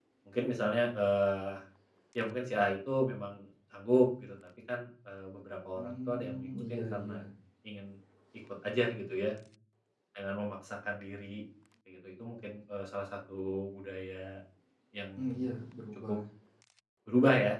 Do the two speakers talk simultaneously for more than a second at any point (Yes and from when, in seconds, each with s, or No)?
Yes, from 5.8 s